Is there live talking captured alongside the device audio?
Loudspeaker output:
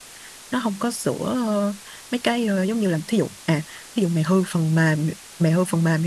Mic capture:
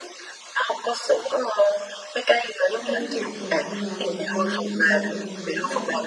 Yes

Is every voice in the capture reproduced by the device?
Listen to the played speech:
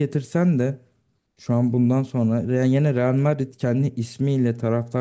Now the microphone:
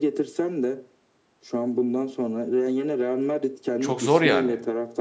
No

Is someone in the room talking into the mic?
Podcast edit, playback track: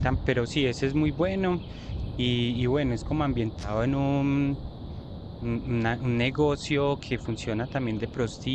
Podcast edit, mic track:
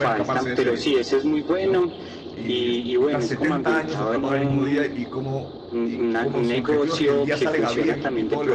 Yes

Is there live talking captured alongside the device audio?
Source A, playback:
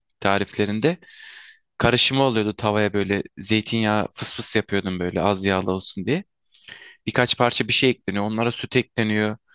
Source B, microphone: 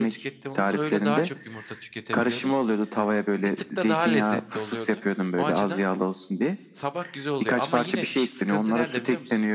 Yes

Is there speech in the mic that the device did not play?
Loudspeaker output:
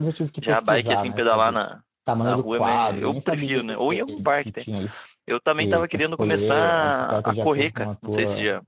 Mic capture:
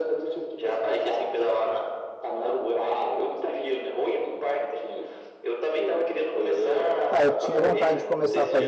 Yes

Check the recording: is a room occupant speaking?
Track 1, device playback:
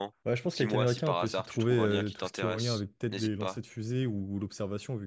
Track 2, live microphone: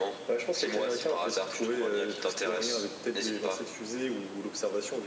No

